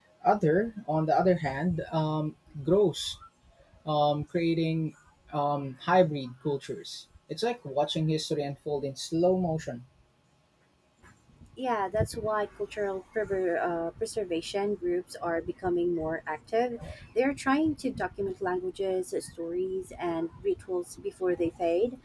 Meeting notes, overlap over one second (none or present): none